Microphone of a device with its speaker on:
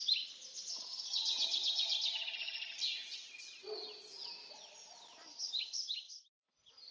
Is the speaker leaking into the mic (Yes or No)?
No